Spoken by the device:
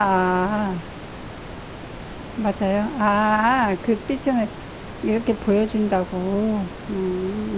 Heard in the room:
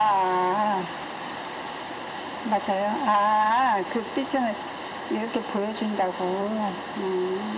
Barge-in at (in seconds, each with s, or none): none